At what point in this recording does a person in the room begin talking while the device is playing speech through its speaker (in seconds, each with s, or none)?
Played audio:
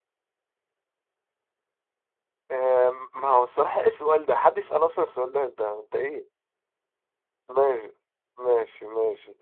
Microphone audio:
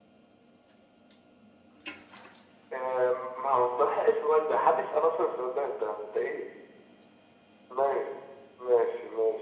none